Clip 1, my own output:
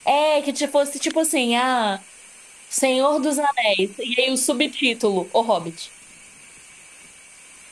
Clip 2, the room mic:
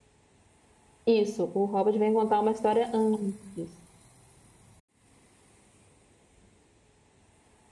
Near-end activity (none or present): present